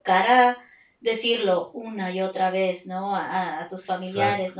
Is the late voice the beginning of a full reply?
No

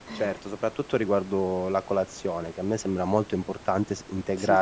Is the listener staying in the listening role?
Yes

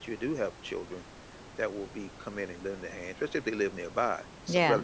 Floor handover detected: Yes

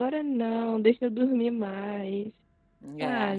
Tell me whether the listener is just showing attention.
No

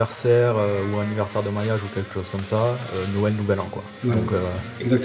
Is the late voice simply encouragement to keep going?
No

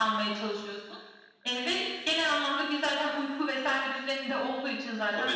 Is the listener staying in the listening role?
No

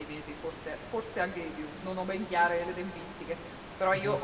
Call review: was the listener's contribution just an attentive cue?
Yes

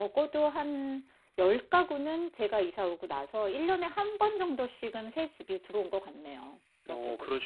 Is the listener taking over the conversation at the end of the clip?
Yes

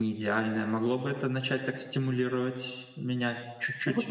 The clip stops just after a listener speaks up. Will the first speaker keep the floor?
No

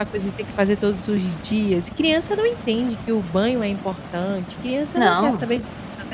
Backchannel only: Yes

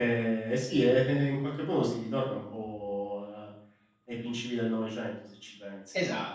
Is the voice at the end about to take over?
No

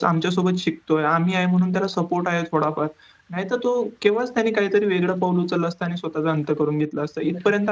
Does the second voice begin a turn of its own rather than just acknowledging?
Yes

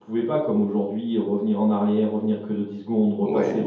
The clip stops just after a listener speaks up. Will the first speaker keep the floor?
Yes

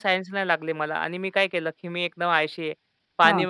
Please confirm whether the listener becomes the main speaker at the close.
No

